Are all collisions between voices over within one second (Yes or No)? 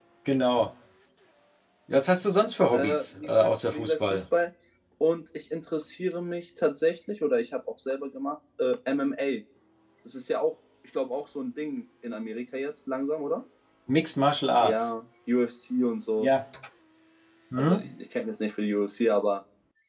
No